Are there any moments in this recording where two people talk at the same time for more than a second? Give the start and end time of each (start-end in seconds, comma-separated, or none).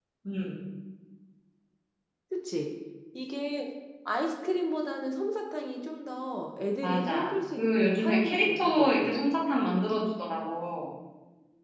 6.8-9.3